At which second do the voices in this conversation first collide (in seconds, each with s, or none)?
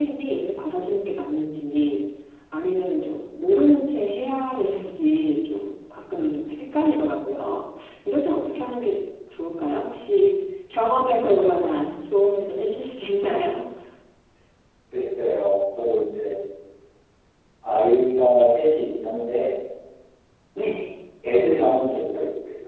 none